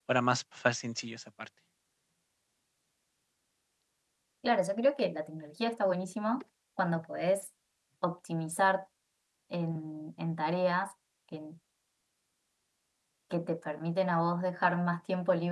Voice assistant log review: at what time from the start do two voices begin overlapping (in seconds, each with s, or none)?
none